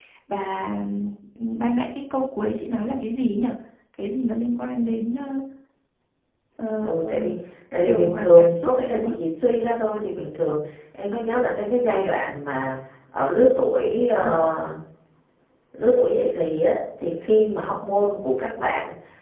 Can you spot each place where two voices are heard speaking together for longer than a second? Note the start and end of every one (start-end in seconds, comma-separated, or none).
7.8-9.1